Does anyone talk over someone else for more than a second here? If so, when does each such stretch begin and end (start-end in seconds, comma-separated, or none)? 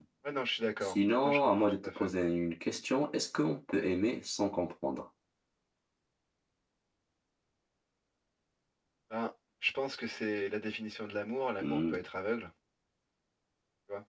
0.8-2.1